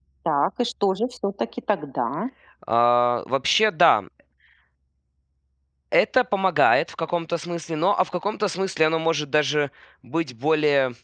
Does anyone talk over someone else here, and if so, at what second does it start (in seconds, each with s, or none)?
none